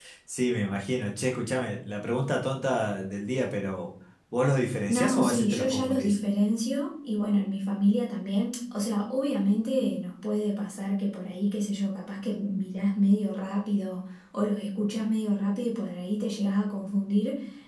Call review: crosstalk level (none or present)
present